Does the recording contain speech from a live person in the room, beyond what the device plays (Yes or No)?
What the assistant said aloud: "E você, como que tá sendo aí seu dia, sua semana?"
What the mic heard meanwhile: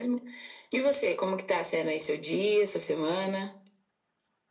No